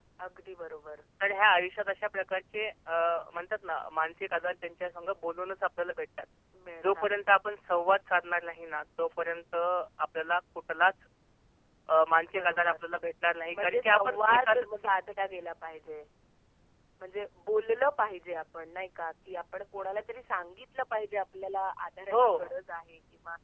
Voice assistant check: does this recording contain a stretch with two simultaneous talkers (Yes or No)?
Yes